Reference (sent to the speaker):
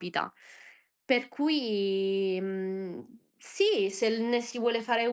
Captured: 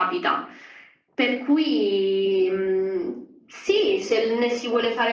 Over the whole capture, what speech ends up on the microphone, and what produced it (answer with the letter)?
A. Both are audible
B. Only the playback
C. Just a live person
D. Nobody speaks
B